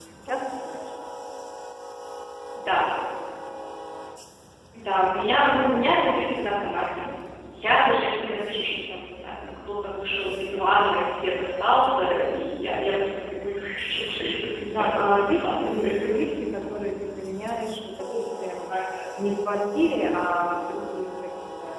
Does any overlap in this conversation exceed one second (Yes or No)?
Yes